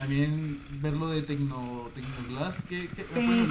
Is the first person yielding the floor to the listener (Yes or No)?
Yes